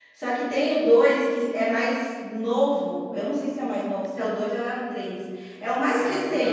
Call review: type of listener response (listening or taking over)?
taking over